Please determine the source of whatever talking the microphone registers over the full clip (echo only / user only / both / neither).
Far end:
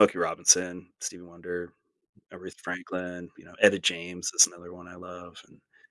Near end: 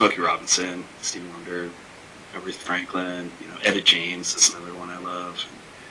echo only